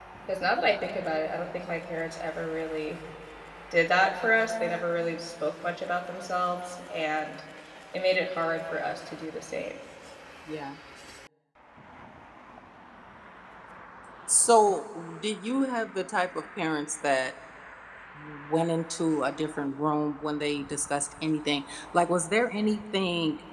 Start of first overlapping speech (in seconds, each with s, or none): none